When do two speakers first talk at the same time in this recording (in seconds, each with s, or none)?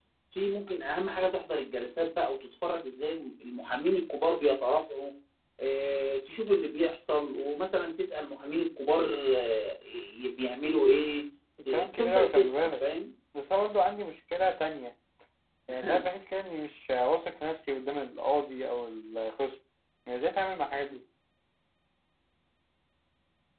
11.6 s